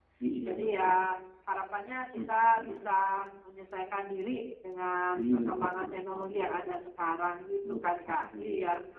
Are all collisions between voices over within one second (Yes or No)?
No